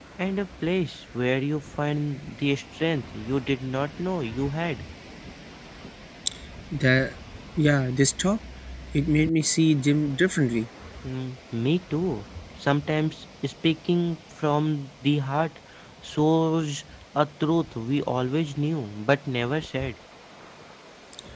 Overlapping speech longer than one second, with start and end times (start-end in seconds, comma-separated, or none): none